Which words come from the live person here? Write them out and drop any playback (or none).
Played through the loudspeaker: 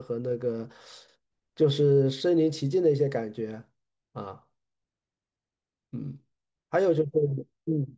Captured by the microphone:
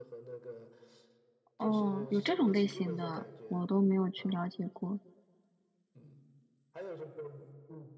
哦，有这种类型的，我都没有去了解过。